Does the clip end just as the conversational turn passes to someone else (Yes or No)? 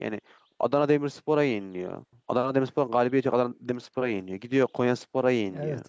No